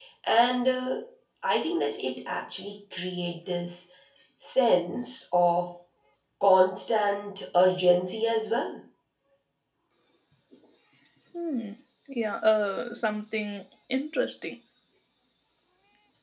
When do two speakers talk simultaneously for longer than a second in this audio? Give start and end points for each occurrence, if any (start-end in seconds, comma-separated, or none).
none